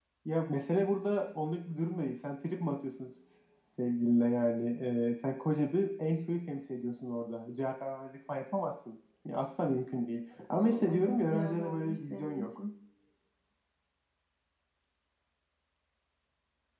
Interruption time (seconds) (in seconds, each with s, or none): 10.6 s